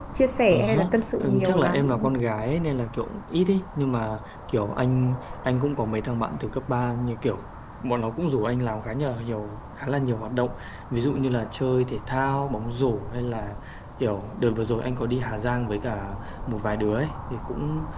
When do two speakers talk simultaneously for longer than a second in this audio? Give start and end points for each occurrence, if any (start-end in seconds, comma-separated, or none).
0.5-1.9